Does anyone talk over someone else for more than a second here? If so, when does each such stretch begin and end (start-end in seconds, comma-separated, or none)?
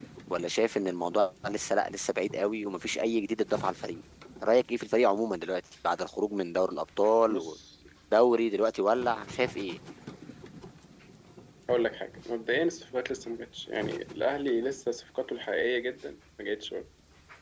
none